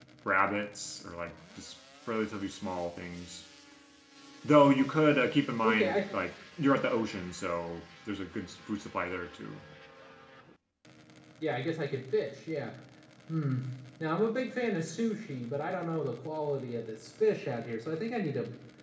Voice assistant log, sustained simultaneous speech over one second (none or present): none